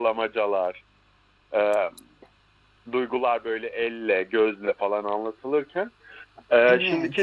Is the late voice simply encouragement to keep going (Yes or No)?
Yes